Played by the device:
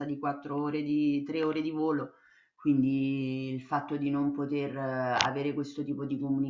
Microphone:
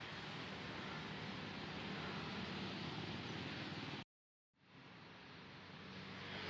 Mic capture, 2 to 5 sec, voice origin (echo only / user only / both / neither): neither